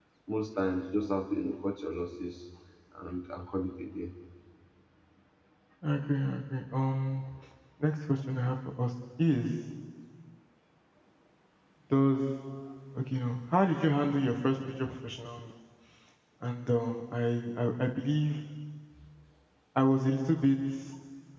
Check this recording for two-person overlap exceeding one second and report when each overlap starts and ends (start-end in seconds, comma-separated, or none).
none